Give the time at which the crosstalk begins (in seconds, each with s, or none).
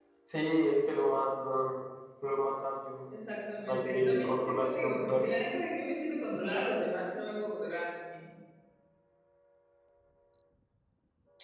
3.6 s